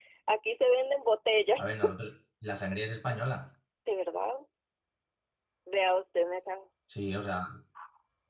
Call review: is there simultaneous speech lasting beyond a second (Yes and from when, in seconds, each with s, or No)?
No